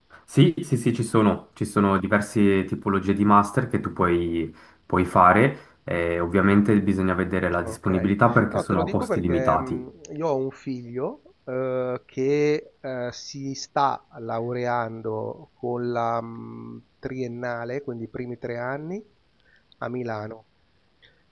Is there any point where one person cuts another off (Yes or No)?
Yes